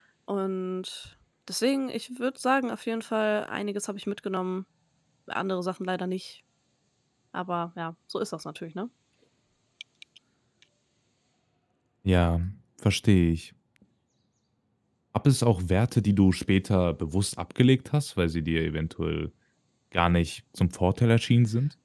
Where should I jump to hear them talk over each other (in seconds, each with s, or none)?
none